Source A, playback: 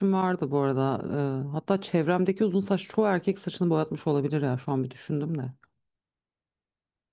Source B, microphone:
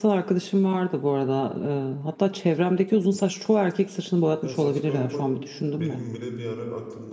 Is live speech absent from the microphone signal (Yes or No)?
No